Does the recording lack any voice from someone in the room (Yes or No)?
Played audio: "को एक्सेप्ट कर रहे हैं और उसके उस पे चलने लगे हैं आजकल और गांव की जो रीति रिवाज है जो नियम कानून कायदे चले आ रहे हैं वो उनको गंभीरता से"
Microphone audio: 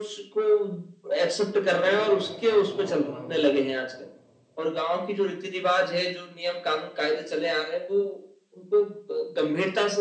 No